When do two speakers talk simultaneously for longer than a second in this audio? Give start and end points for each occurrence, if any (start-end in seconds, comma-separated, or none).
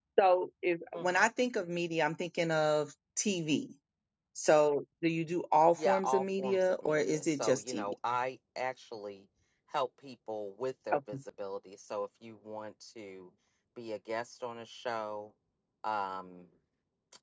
5.8-7.9